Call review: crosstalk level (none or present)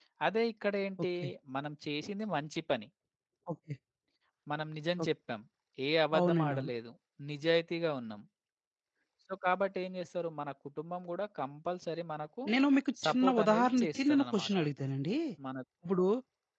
present